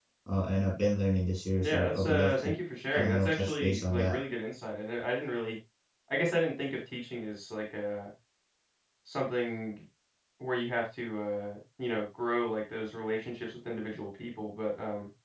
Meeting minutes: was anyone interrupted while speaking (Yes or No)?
Yes